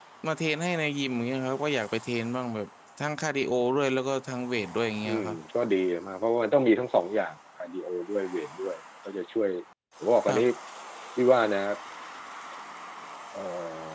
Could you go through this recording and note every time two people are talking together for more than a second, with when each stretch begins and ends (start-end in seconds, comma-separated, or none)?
none